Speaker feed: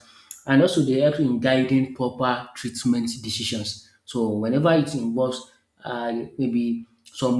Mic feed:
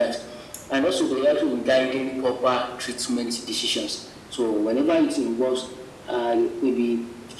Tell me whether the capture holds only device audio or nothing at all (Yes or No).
Yes